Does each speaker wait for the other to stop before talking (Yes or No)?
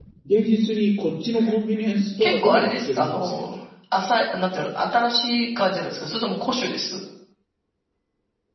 No